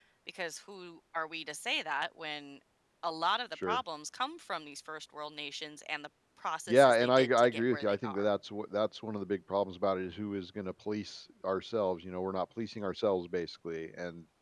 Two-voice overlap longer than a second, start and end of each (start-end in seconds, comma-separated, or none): 6.7-8.3